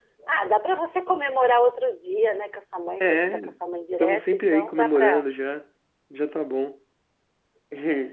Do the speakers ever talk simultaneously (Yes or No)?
Yes